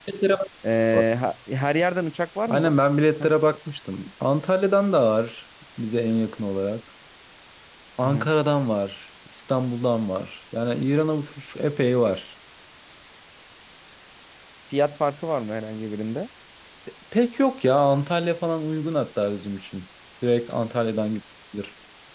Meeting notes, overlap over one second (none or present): none